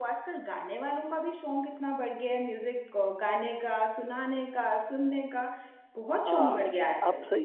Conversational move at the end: taking over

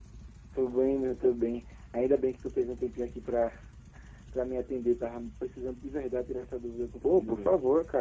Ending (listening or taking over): taking over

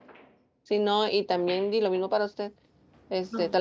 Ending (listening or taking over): listening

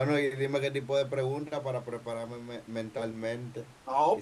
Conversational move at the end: taking over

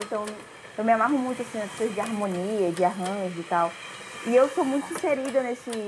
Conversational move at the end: listening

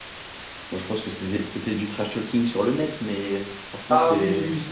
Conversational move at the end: taking over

